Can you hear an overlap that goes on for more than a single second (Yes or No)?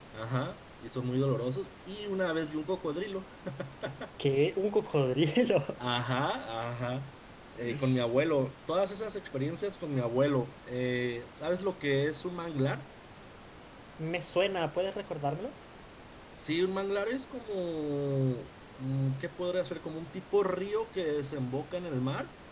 No